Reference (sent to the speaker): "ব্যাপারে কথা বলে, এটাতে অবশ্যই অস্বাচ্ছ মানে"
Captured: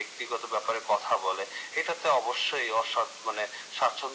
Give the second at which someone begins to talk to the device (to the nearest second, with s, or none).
none